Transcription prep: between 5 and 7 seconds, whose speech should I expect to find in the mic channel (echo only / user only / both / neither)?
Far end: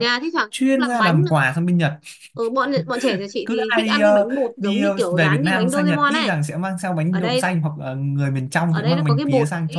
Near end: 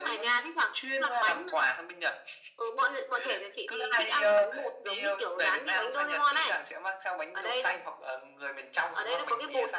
echo only